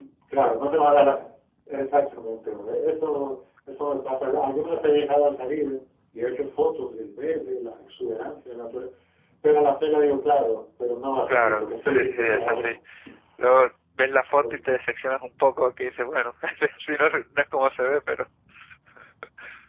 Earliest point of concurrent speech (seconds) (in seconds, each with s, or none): 11.3 s